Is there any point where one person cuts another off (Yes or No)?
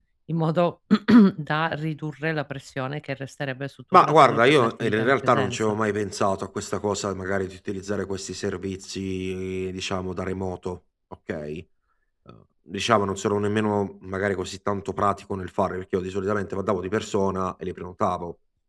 Yes